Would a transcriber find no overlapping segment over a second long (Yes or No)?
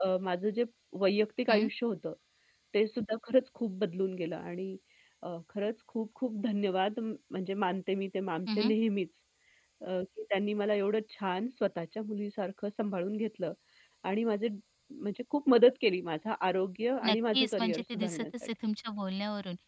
No